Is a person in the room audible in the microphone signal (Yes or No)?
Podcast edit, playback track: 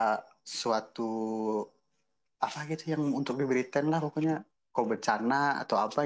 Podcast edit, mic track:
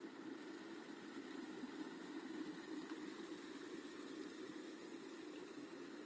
No